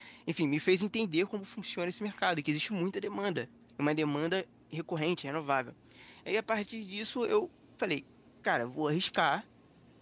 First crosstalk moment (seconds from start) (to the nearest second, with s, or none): none